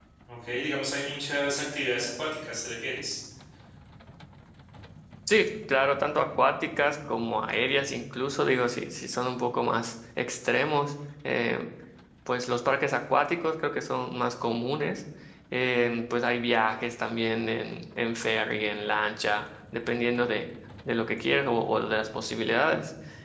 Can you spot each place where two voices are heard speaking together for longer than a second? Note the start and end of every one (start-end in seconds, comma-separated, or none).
none